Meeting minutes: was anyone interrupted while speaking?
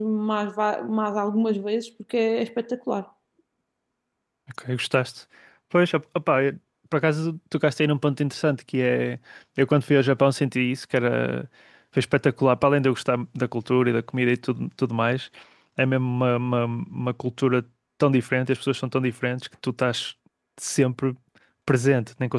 No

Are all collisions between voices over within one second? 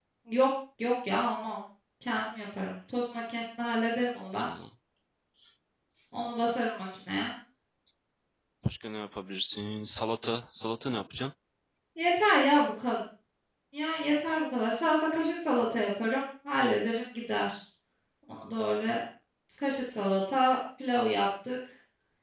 Yes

